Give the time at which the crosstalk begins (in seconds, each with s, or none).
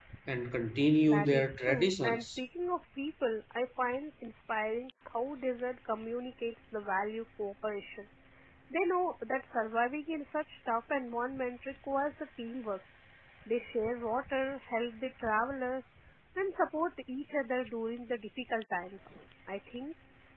1.0 s